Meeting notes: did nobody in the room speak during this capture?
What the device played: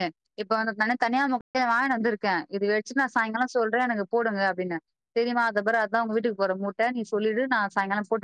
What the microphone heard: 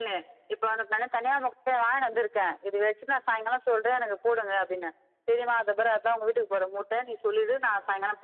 Yes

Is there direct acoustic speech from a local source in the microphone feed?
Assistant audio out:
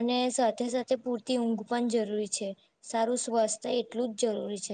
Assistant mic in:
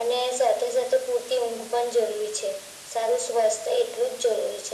No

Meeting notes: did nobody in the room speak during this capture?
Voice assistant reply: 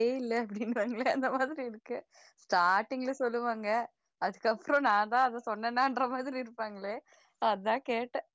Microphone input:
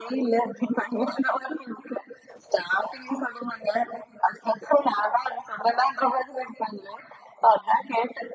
Yes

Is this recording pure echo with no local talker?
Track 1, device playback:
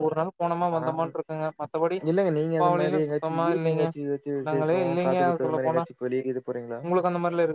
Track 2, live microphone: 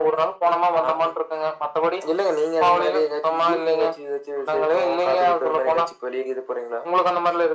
Yes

